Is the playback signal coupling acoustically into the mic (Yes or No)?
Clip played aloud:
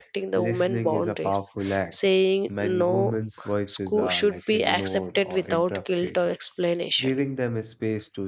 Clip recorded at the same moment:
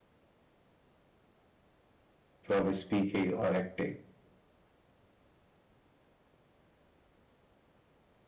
No